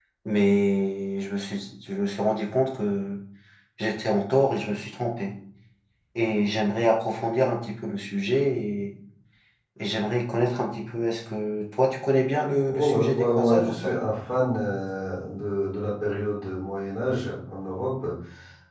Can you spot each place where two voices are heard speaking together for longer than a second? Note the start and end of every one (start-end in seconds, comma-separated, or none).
12.7-13.9